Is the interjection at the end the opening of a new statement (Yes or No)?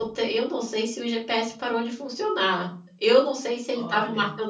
No